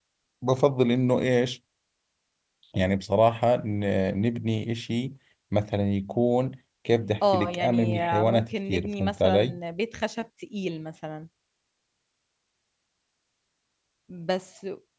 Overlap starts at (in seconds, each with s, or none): 7.2 s